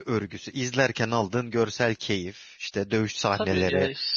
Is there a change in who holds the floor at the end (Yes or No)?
Yes